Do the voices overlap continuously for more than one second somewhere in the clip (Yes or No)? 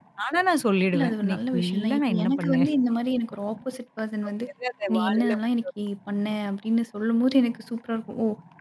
Yes